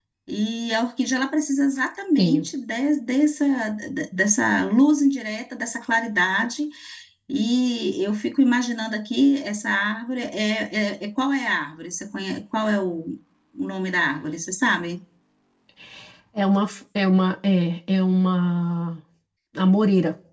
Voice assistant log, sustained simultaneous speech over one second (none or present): none